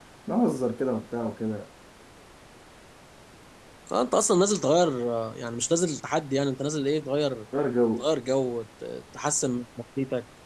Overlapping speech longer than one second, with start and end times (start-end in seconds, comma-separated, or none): none